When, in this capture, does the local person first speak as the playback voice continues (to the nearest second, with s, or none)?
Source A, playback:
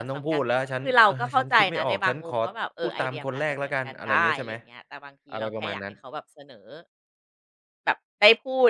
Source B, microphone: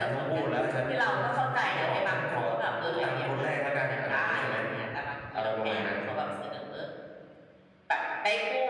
none